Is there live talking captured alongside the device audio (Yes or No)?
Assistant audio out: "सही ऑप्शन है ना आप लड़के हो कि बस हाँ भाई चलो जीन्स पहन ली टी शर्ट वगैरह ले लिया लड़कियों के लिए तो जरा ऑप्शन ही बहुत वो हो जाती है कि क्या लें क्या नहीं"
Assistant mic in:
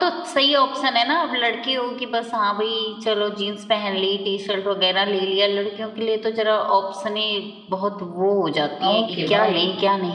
Yes